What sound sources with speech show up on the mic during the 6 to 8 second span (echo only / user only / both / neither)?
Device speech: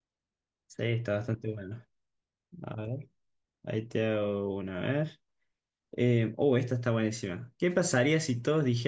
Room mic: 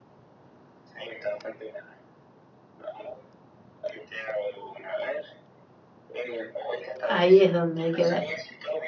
both